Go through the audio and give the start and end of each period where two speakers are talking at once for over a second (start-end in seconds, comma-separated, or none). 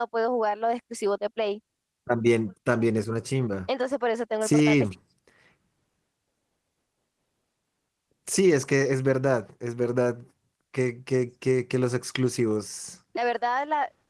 none